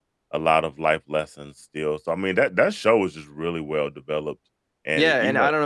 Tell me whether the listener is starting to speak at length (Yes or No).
Yes